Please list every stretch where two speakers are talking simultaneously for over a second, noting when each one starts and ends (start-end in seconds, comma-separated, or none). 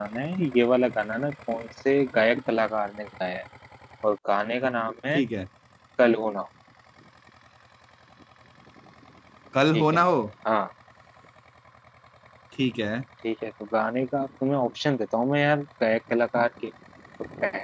none